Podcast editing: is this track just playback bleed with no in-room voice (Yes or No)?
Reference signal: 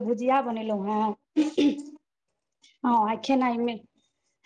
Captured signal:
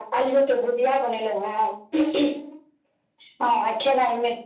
Yes